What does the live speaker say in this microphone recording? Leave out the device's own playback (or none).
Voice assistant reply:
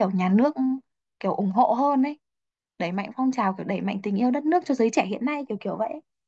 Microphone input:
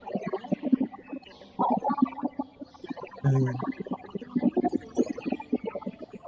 ừ.